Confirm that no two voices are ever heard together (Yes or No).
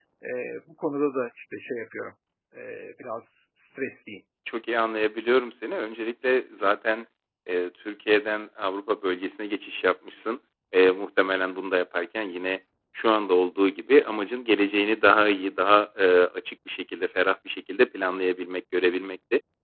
Yes